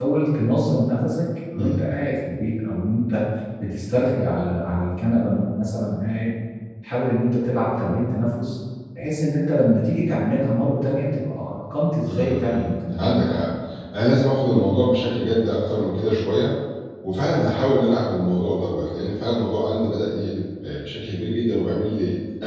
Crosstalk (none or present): present